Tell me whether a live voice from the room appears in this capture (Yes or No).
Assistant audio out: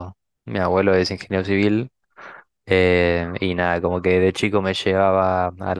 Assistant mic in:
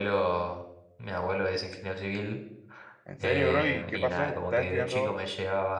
Yes